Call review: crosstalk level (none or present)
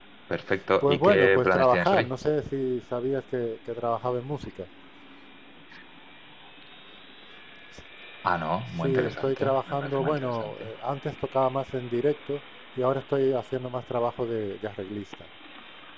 present